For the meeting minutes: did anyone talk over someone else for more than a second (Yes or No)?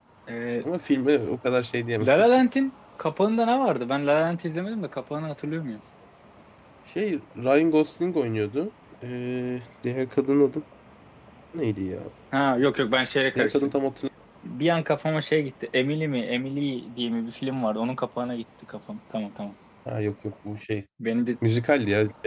No